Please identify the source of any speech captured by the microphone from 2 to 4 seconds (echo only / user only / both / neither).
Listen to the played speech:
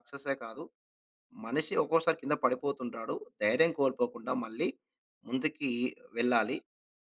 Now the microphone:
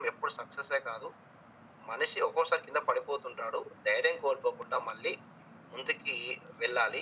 echo only